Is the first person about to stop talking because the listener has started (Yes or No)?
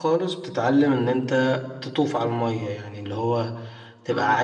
No